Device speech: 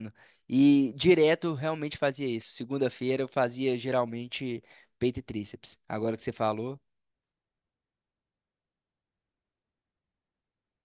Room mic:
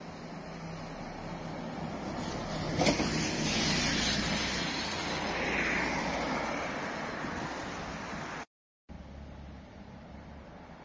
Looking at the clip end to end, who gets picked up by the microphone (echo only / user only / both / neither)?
neither